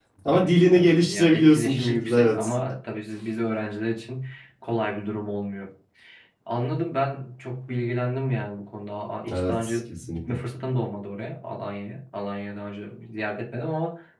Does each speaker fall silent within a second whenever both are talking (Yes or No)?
No